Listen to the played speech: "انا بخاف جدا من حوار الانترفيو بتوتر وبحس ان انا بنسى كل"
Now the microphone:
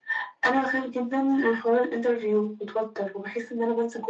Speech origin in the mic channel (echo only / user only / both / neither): echo only